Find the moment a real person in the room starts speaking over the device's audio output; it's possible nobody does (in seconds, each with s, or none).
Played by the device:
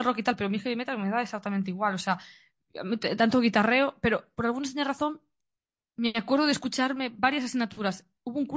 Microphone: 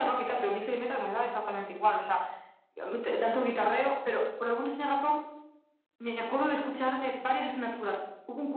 none